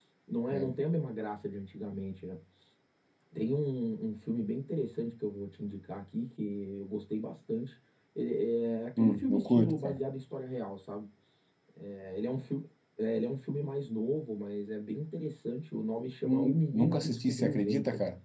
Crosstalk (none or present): present